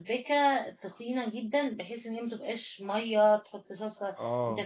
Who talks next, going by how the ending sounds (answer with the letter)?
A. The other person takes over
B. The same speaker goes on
B